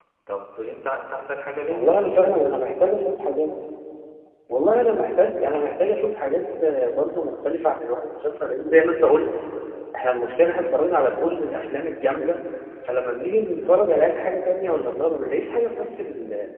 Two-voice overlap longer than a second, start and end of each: none

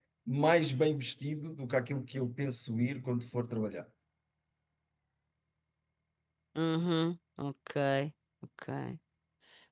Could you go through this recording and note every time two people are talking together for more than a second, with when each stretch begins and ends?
none

